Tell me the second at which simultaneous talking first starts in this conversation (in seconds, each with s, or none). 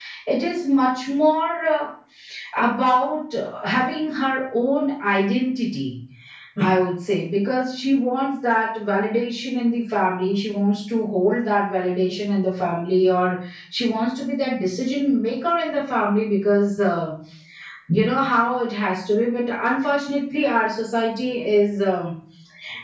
none